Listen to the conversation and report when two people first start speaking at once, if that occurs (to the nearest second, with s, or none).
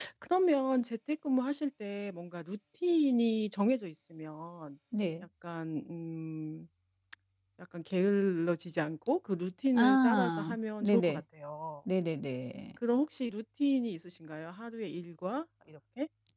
10 s